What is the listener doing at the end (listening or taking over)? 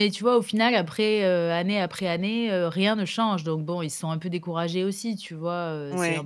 listening